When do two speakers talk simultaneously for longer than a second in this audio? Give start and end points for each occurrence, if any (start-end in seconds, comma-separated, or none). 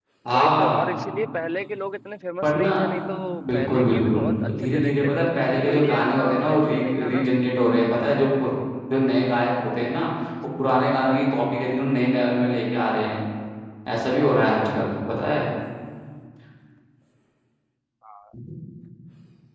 3.5-7.2